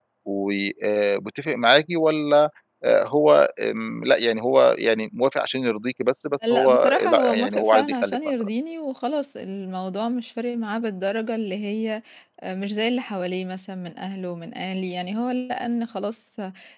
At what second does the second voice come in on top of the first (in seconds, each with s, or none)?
6.4 s